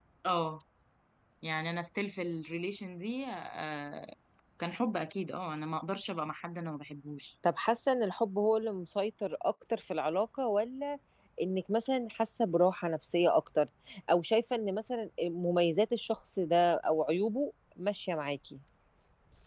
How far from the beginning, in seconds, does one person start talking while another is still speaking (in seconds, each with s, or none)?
none